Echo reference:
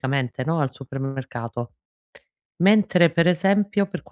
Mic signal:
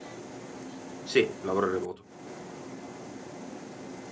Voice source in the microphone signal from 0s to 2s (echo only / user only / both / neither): user only